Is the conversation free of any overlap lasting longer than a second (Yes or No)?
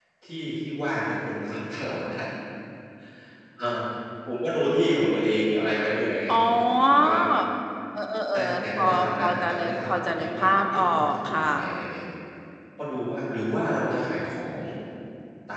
No